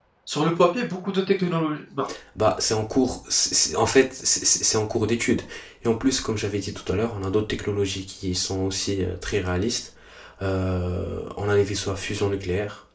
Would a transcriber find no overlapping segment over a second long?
Yes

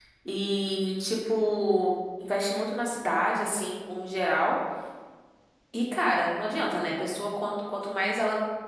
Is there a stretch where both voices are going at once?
No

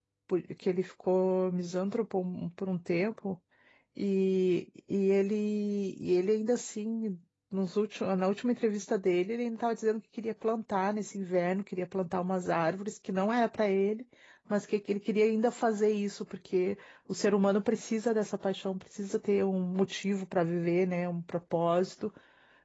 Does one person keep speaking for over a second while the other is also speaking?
No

